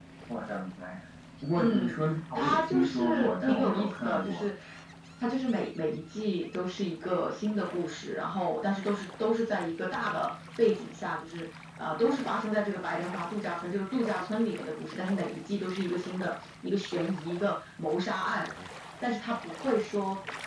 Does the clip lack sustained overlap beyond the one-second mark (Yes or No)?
No